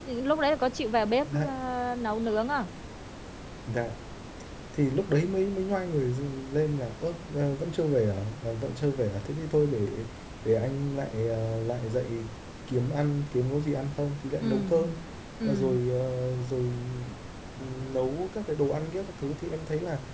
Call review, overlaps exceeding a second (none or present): none